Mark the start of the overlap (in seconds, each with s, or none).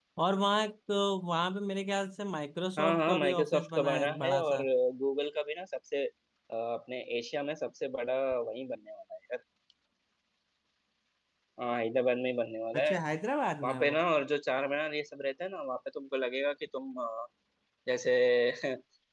2.8 s